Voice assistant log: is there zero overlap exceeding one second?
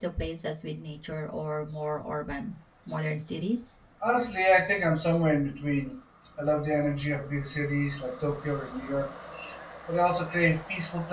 Yes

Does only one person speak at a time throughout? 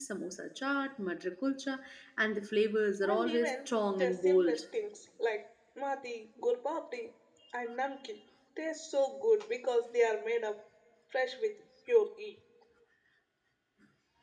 No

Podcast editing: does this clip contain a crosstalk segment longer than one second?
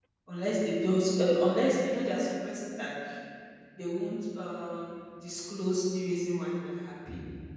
No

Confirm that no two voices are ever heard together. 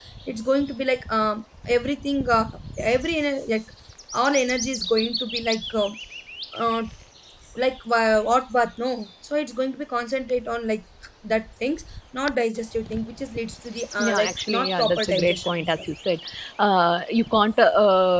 No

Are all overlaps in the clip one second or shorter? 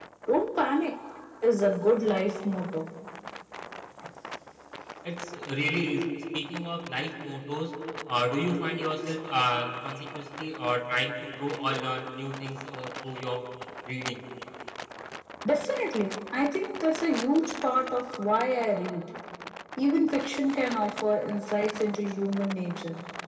Yes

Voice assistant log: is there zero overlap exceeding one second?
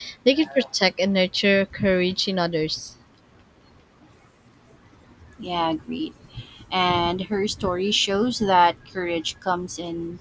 Yes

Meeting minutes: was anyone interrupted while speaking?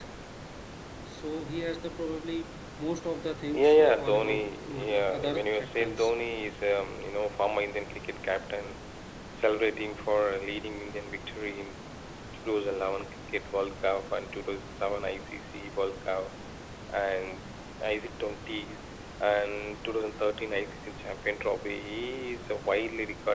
Yes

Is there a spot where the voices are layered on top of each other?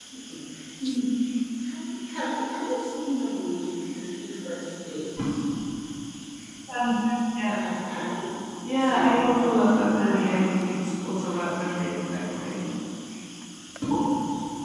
Yes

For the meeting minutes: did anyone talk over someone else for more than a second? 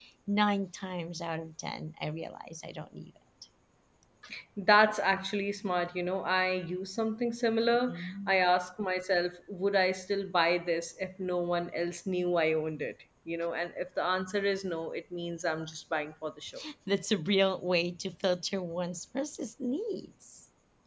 No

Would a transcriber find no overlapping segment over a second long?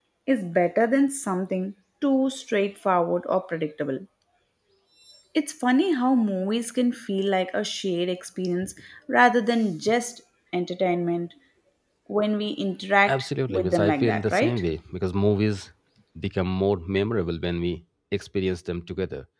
No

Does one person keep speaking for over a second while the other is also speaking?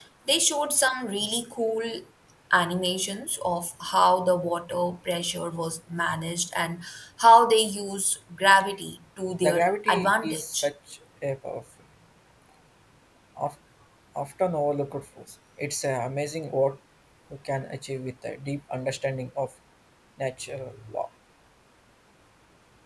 Yes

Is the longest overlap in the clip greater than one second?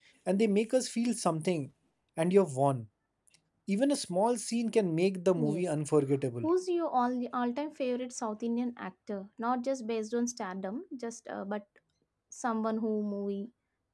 No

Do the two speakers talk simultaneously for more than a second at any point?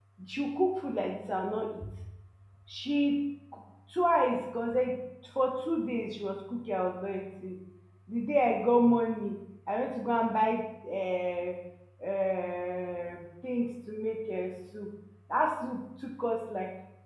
No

